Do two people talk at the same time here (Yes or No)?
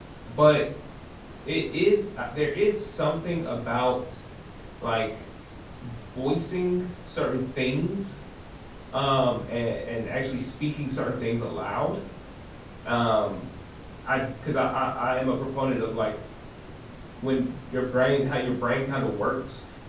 No